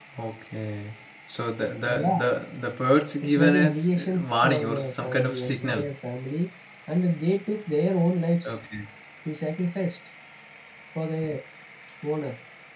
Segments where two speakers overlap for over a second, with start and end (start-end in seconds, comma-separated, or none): 3.2-5.9